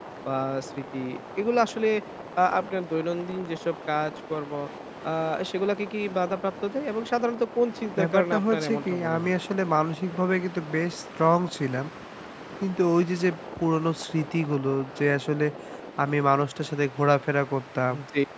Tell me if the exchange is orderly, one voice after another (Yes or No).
No